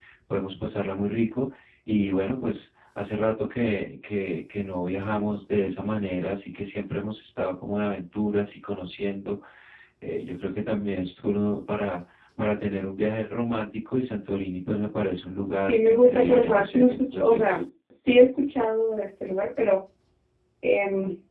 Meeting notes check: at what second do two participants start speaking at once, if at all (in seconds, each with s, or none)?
15.6 s